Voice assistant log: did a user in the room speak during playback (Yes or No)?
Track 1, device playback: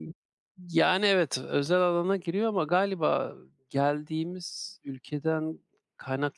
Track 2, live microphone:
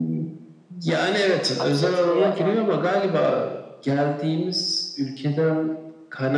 Yes